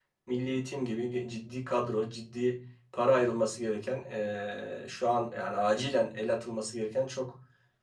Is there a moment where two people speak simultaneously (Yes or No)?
No